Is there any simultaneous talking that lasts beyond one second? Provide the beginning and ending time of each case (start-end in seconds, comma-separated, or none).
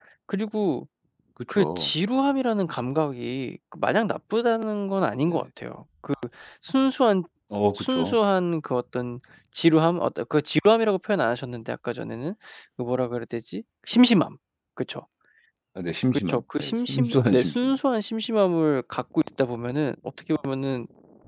16.3-17.7